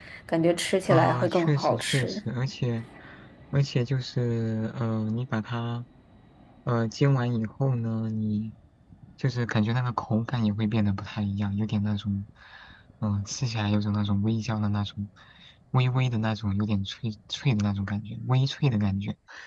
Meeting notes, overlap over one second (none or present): present